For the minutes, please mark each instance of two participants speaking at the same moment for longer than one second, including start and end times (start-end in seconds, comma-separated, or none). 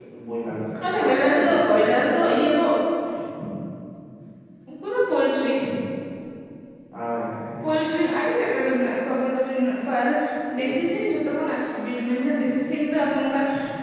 0.9-2.4